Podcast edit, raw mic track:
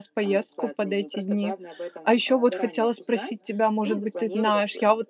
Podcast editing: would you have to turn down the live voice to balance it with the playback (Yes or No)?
Yes